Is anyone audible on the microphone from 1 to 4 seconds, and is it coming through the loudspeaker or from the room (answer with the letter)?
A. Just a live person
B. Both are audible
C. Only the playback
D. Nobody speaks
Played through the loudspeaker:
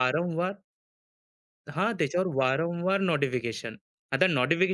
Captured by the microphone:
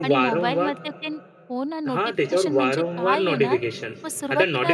B